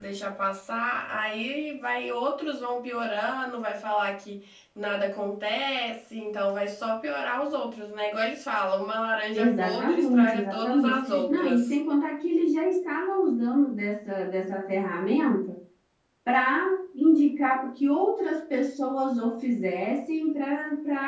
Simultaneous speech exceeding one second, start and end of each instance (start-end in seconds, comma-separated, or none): 9.3-11.8